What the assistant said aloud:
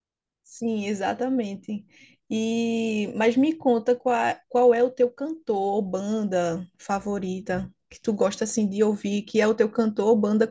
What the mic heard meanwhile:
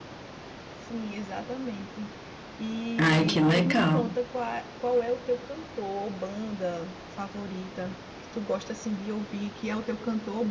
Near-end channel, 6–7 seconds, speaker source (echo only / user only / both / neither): echo only